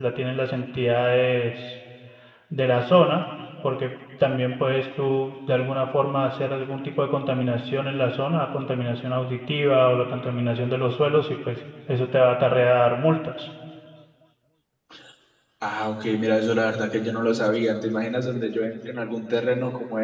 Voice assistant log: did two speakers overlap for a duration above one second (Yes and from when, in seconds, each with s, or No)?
No